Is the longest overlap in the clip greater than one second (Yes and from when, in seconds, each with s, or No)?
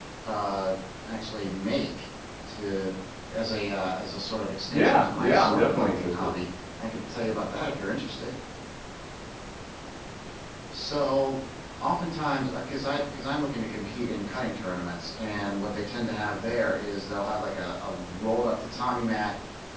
Yes, from 4.7 s